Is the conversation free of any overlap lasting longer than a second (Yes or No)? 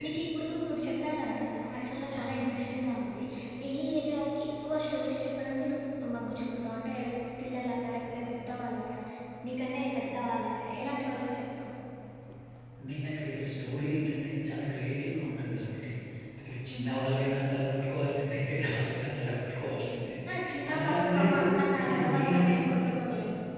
No